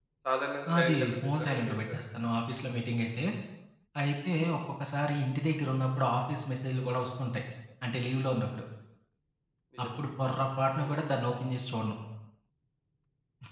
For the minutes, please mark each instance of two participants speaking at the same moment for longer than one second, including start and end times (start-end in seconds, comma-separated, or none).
0.8-2.0